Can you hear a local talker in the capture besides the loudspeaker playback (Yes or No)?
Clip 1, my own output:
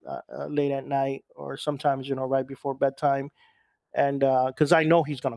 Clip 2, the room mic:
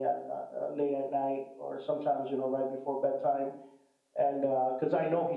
No